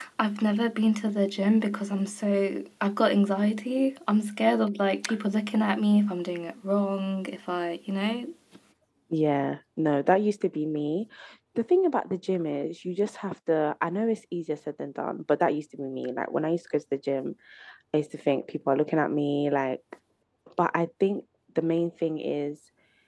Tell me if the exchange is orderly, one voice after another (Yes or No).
Yes